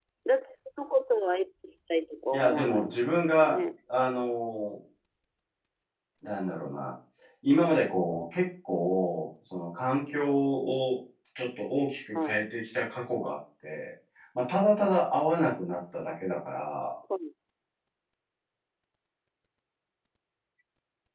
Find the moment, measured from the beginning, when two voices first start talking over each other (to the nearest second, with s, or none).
2 s